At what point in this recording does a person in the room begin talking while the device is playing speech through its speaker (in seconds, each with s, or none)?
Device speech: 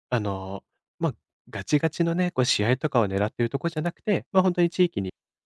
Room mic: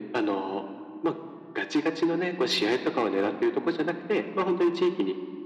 none